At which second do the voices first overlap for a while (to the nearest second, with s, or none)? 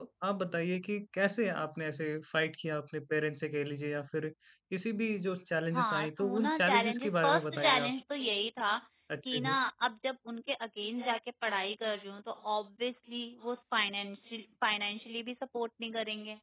6 s